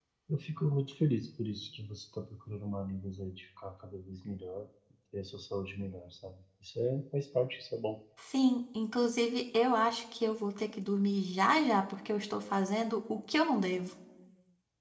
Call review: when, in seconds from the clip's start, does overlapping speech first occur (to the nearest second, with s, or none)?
none